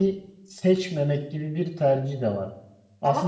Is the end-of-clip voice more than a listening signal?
No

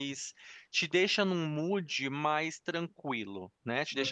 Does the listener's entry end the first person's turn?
No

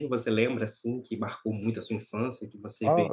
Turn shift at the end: Yes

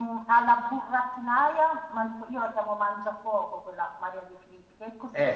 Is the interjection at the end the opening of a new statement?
No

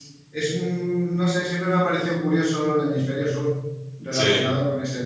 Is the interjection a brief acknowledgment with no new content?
Yes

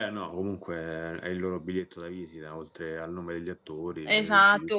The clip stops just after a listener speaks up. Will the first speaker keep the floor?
No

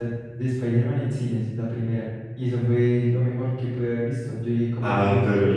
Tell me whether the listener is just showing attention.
No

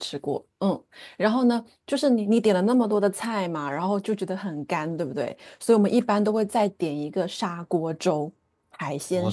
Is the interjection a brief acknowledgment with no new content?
No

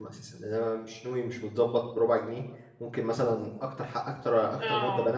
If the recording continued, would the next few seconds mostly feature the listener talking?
No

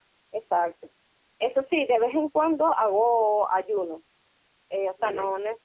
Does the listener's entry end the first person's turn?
No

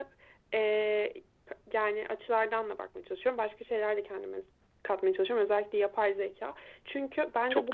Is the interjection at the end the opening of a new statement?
No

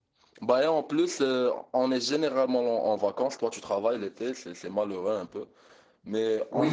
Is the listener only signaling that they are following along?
No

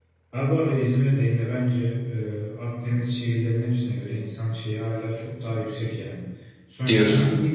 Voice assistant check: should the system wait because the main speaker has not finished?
Yes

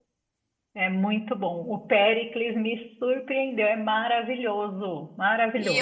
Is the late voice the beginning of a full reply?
Yes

